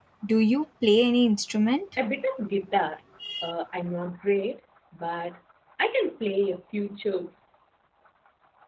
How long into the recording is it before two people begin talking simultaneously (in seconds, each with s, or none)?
none